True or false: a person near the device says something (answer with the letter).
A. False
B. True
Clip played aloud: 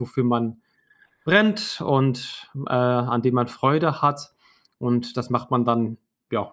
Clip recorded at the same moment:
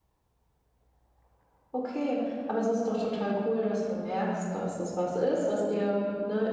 B